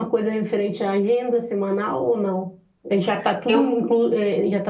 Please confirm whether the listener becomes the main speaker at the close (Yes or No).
No